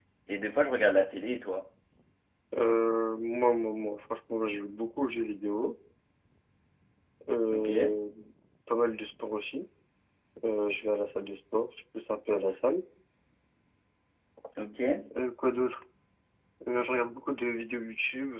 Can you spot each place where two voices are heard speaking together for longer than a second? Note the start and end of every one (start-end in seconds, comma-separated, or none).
none